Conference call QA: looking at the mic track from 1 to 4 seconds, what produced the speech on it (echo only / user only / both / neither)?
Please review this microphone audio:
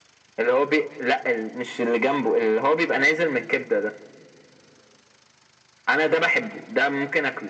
echo only